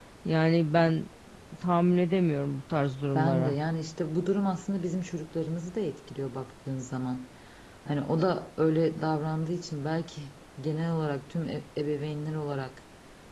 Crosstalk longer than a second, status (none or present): none